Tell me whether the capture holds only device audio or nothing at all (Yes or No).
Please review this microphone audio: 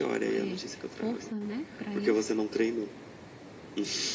Yes